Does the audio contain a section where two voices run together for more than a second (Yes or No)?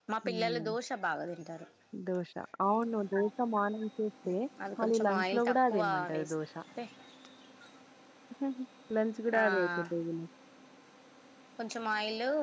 Yes